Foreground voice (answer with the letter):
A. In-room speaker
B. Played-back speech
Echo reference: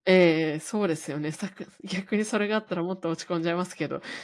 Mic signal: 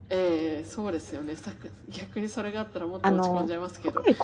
A